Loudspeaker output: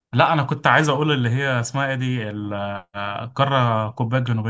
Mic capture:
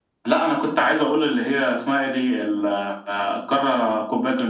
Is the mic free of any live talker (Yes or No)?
Yes